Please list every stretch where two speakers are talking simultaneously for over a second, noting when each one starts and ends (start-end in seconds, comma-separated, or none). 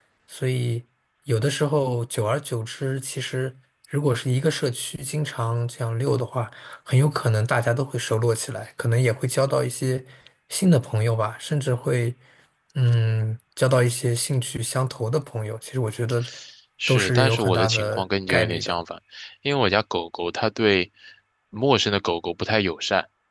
16.9-18.7